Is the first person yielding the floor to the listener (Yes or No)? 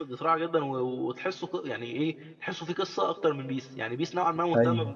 No